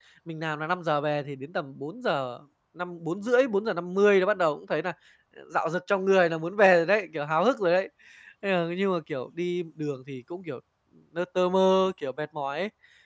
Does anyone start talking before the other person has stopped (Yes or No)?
No